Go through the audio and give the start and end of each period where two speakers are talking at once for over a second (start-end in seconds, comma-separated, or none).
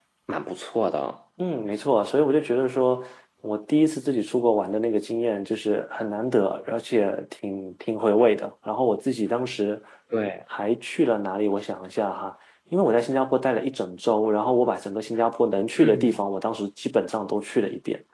none